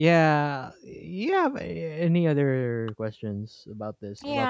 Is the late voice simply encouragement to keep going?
No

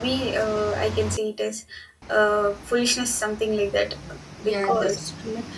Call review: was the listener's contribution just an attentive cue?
No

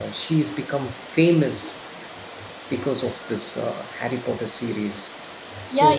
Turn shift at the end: Yes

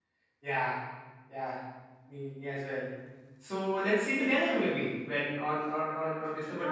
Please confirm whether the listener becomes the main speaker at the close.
Yes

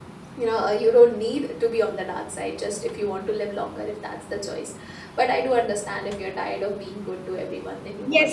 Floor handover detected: Yes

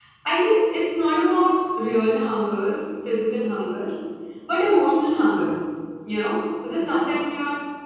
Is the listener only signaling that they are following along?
Yes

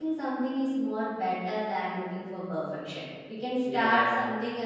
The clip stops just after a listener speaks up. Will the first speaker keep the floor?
Yes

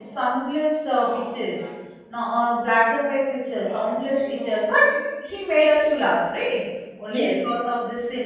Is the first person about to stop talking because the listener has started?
No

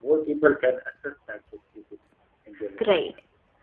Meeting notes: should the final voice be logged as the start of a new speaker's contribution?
Yes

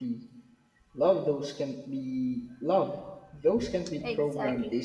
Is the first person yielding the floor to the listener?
Yes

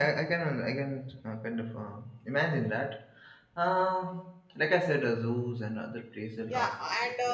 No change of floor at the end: No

